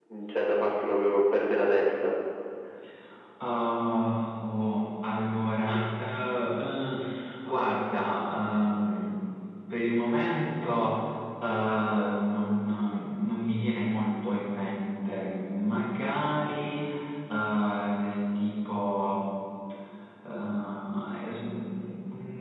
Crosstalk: none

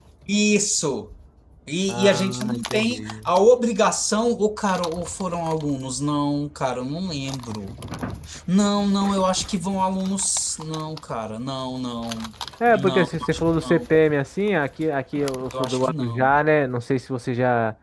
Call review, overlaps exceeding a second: present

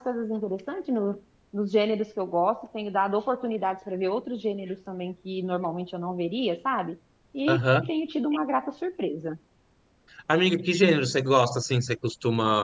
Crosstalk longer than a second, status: none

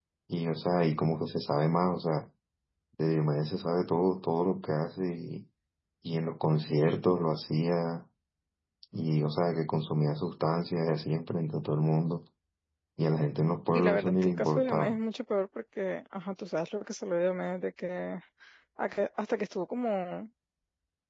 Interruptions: present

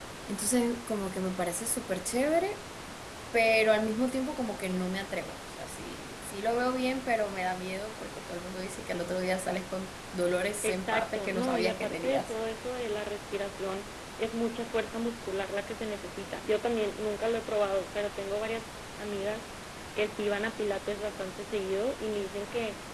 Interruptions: present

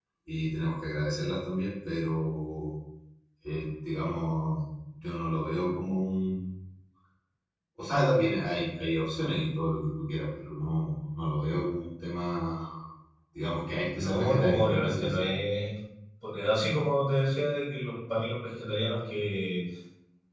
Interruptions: present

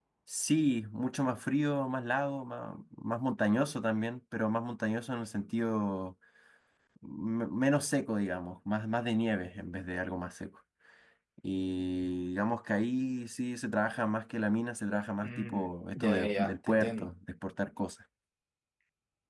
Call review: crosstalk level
present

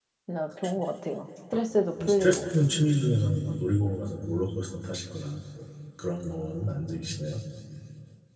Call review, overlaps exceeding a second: none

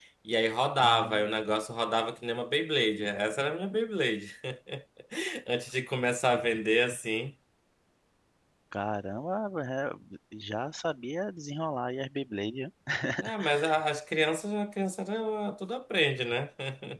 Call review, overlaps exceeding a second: none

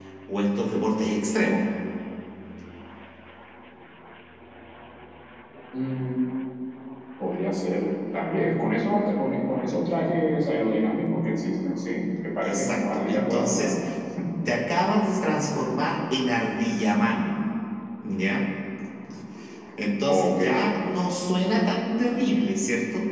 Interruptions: present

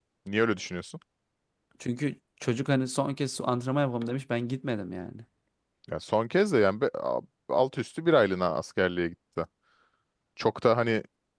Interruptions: none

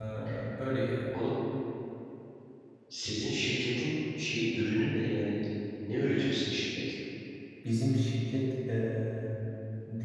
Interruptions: none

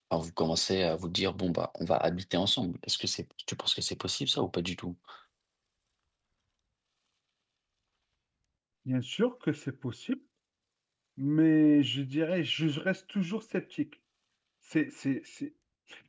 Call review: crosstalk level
none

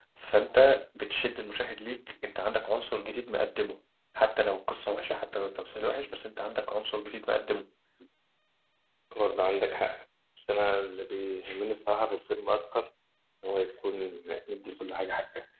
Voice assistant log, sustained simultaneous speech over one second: none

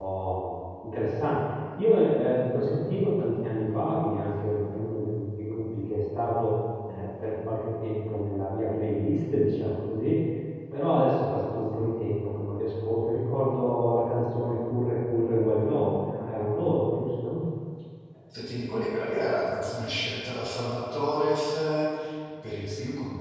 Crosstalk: none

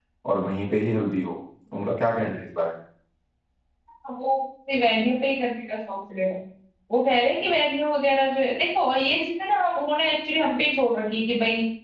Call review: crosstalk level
none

